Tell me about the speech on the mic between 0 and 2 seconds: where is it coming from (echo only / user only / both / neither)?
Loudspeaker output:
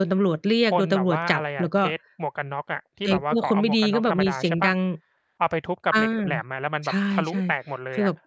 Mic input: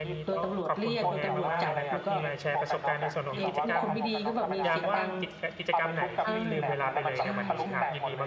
both